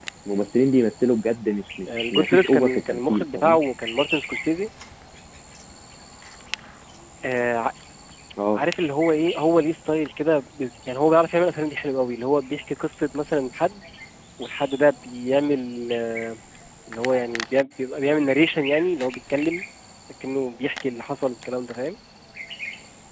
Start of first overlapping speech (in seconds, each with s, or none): 1.9 s